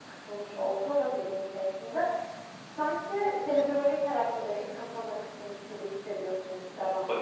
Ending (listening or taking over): taking over